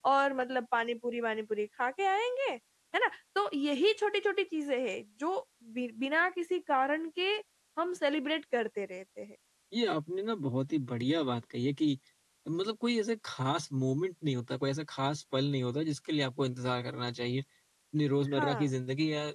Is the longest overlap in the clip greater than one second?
No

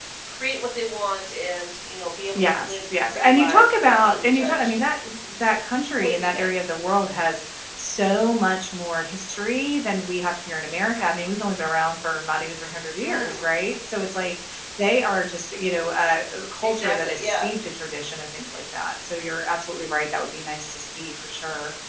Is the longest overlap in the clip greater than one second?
Yes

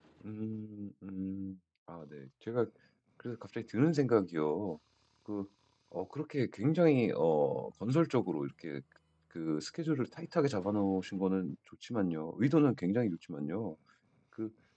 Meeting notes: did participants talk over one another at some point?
No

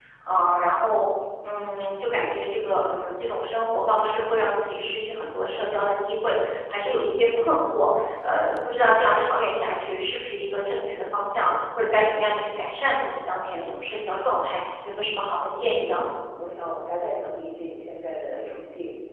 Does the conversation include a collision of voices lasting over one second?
No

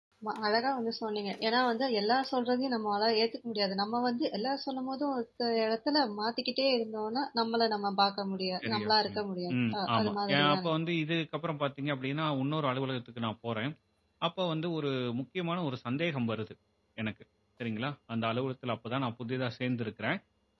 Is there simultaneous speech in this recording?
Yes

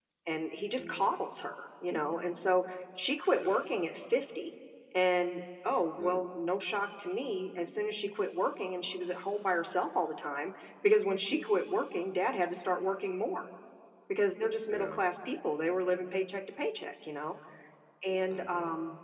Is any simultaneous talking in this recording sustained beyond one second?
No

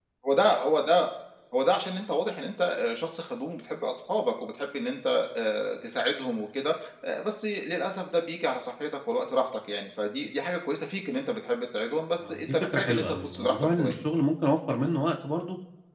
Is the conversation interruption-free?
No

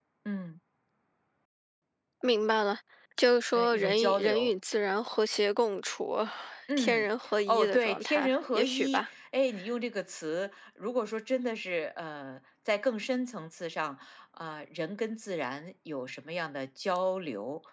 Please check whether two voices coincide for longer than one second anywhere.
Yes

